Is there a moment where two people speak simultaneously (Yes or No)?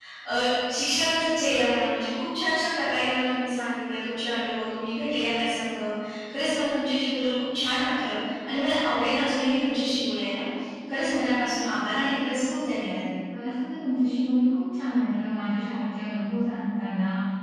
No